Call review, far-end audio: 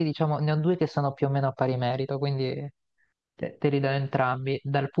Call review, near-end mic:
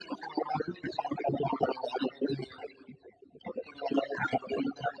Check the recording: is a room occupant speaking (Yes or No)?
No